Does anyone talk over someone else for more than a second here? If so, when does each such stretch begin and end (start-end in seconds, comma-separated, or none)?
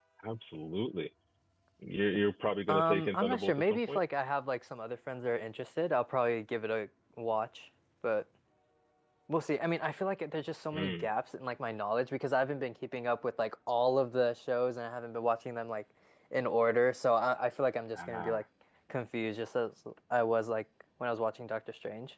2.7-4.0